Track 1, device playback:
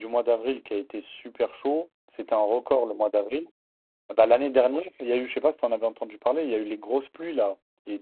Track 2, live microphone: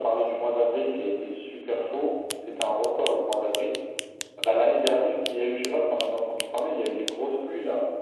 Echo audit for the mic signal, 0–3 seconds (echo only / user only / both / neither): echo only